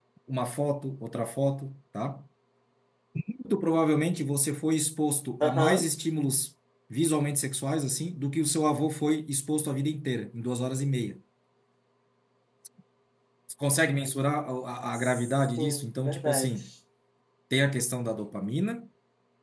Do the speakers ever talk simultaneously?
Yes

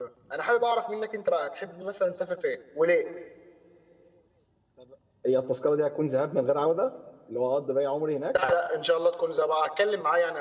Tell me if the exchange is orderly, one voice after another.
Yes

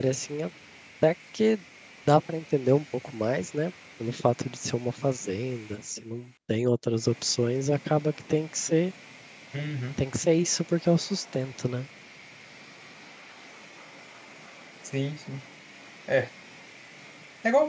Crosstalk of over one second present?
No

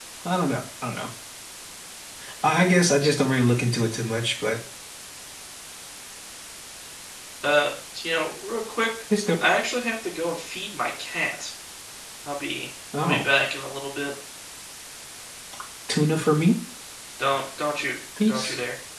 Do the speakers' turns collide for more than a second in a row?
No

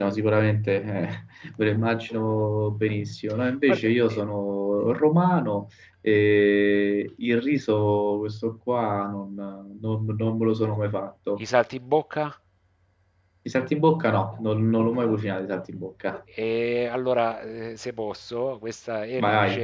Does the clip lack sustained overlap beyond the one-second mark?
Yes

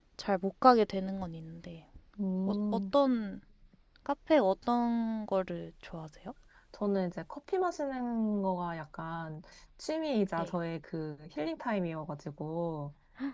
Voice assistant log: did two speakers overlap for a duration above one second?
No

